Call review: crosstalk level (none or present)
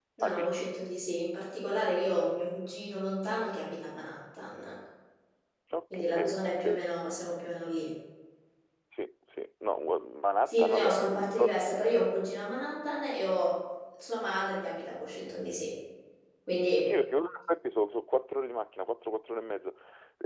present